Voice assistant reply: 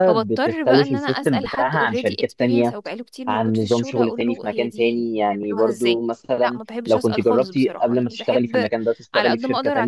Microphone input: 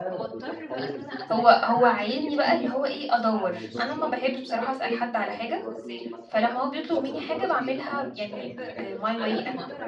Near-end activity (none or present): present